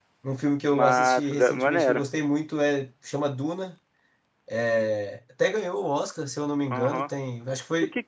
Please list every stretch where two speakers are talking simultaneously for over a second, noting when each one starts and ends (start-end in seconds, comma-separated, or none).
0.7-2.1